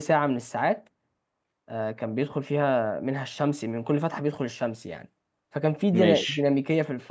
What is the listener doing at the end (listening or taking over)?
listening